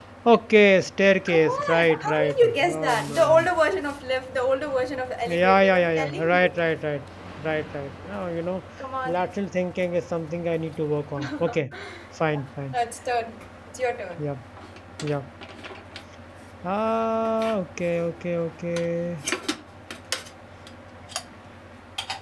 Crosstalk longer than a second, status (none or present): present